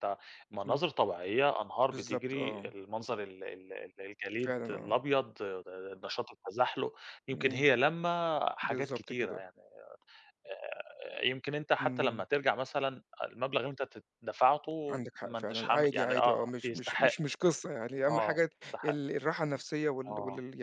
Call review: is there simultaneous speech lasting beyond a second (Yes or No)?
Yes